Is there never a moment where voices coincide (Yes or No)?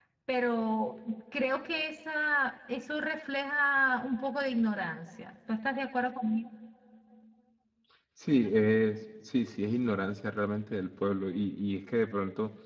Yes